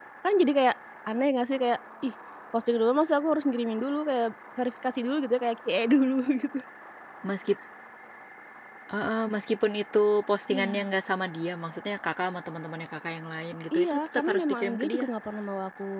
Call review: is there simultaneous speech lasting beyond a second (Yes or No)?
Yes